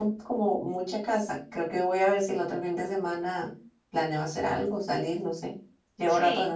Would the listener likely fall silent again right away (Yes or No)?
No